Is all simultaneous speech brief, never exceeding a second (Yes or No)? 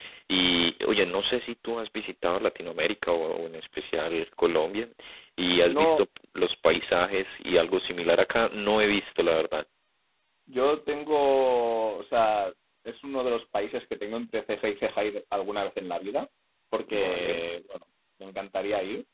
Yes